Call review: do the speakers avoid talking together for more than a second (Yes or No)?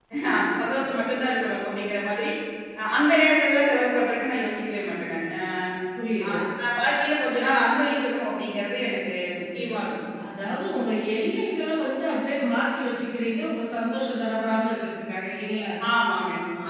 Yes